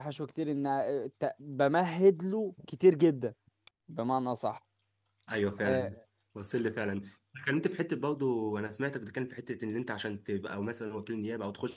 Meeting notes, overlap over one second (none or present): none